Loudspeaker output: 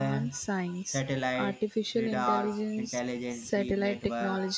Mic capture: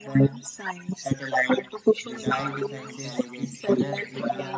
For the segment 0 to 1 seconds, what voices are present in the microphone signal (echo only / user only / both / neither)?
echo only